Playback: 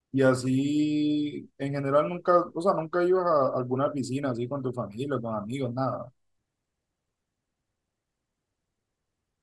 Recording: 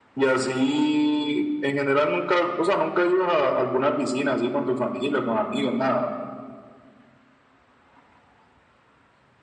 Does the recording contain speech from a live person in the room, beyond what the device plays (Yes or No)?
No